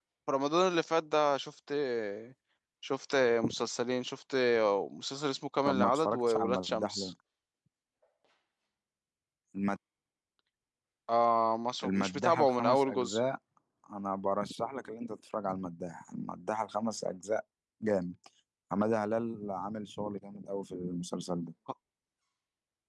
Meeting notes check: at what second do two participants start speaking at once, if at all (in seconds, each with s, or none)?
5.7 s